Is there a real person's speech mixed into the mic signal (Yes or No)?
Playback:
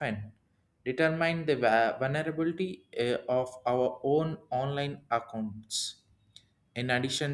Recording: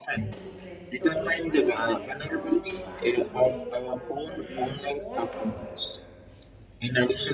Yes